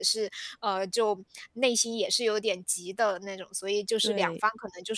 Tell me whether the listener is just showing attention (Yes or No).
Yes